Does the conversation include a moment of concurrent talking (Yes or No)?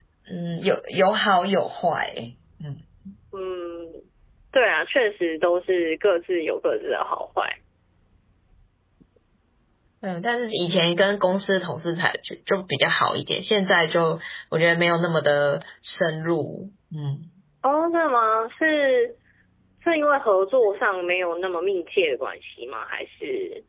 No